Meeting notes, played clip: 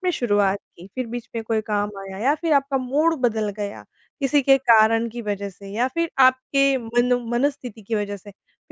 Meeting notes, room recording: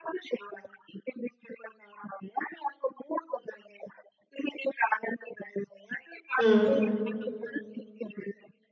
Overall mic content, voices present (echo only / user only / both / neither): both